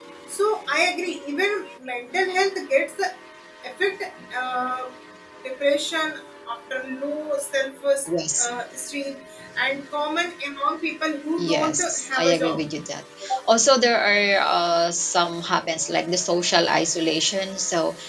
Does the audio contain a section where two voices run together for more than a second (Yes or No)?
Yes